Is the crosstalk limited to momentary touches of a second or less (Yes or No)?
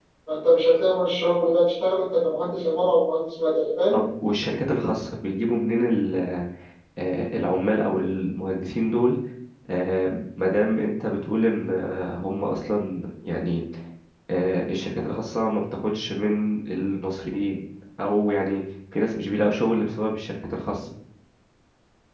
Yes